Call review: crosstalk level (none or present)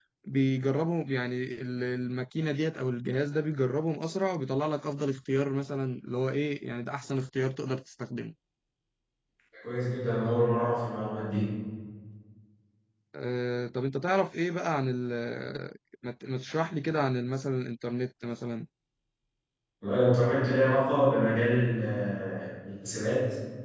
none